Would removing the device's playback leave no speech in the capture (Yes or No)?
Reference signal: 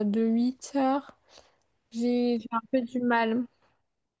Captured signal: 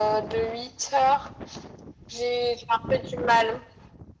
Yes